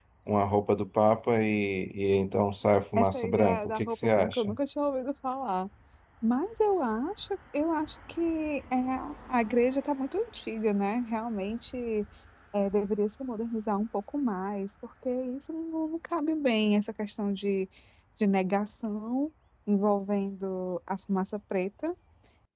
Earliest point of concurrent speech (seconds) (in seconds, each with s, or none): 3.0 s